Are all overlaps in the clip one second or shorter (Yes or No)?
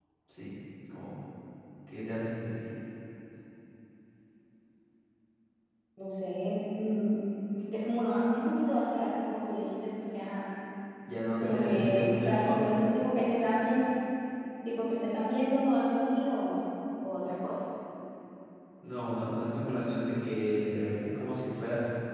No